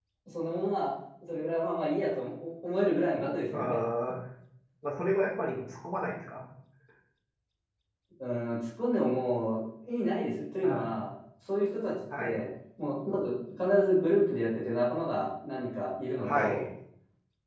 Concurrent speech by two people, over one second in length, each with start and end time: none

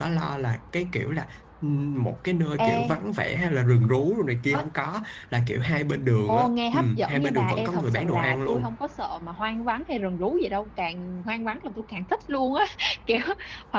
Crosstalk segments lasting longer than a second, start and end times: 6.3-8.7

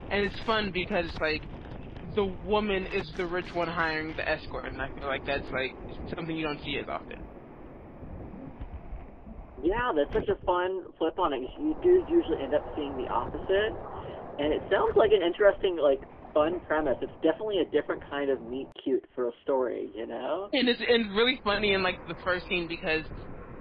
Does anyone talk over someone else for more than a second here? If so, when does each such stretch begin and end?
none

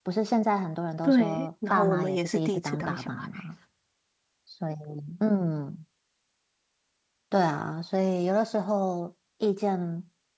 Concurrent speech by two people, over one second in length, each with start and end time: 1.0-3.3

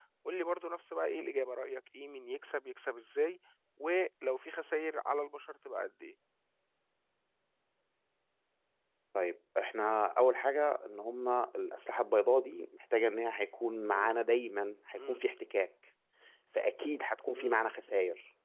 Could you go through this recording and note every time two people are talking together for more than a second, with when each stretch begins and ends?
none

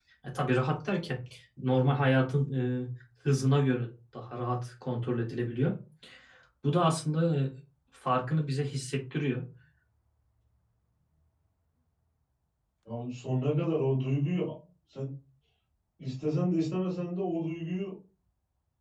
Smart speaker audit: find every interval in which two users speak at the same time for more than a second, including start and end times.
none

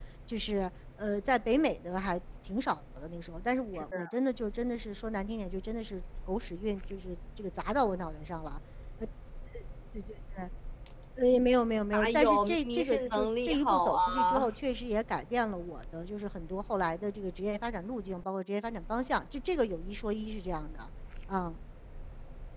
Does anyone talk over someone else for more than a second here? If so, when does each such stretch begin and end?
11.9-14.5

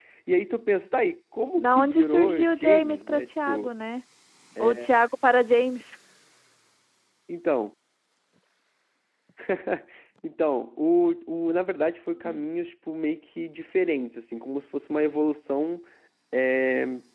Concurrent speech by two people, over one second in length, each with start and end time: 1.6-3.7

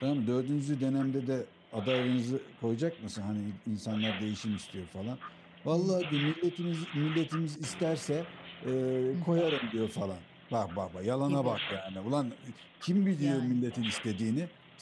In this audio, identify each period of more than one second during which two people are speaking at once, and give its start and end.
none

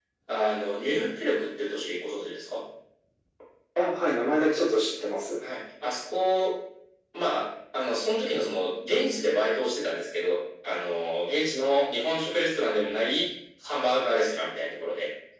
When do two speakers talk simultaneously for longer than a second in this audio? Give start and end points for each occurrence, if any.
none

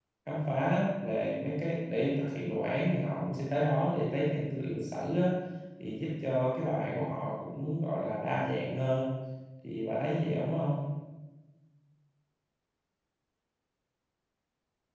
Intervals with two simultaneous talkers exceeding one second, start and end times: none

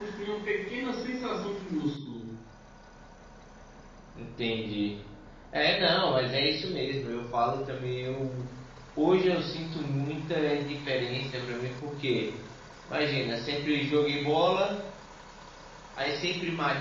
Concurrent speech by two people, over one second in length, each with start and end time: none

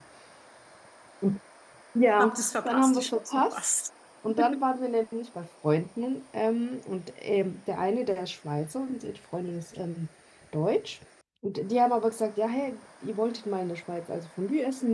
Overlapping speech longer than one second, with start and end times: 2.2-3.6

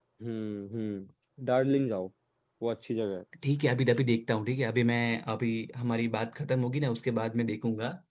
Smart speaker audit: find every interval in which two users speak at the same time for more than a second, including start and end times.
none

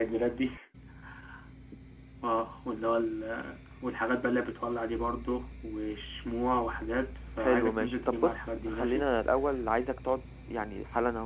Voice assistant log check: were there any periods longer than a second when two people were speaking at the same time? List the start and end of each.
7.4-9.1

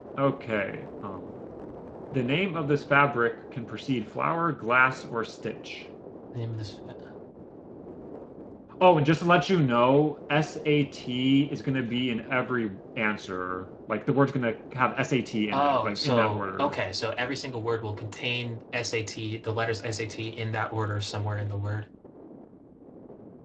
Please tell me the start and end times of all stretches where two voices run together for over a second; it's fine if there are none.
15.5-16.8

